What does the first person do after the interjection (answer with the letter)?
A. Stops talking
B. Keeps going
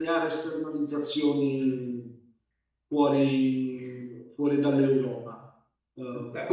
B